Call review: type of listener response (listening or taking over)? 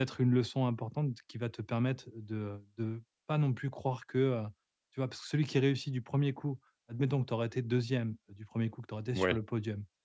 listening